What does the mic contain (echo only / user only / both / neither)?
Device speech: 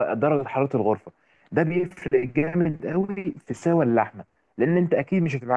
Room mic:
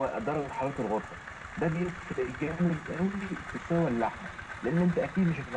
echo only